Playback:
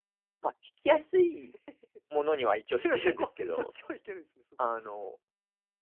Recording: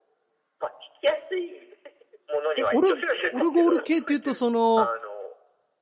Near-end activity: present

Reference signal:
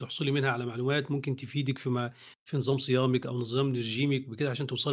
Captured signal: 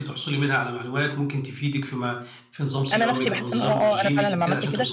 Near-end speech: present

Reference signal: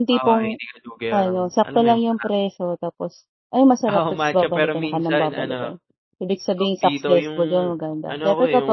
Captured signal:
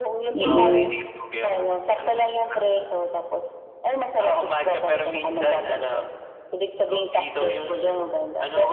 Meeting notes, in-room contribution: present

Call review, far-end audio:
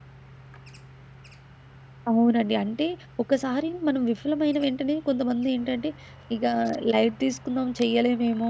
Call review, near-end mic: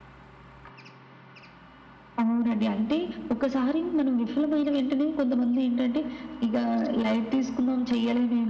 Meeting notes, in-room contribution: none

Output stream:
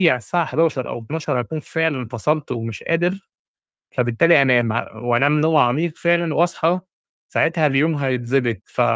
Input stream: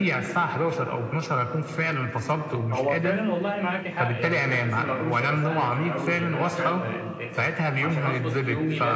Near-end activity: present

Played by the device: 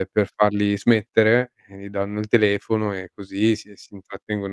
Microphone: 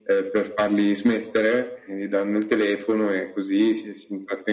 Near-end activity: none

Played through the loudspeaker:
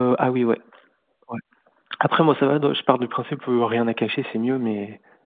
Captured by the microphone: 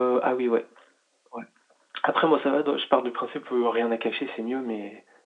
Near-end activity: none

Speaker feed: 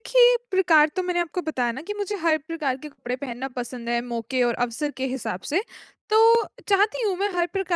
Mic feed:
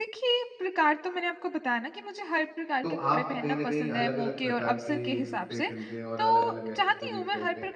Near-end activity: present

